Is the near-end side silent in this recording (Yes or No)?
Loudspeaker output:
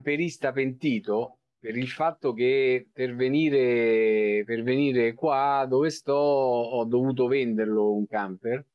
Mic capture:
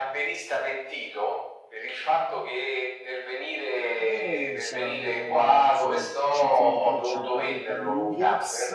No